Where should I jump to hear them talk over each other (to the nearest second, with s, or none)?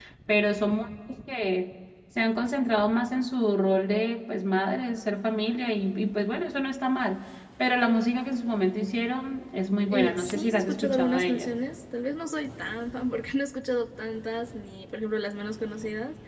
10 s